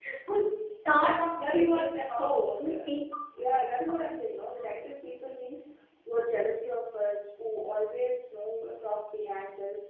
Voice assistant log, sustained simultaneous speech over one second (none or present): present